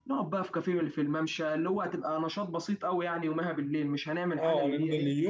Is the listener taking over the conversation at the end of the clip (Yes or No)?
Yes